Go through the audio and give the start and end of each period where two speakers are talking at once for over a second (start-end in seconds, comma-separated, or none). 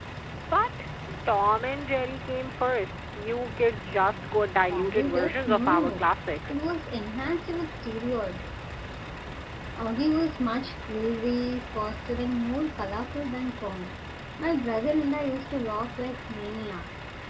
4.7-6.0